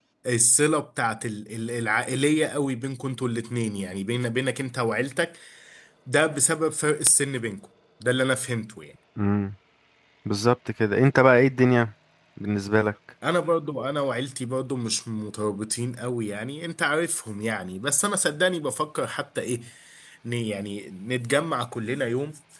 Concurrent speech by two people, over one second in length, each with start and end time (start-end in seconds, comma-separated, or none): none